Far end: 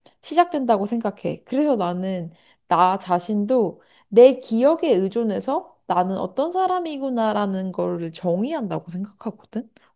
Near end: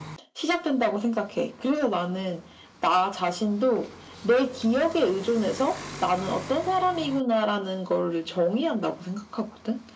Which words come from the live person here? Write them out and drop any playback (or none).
none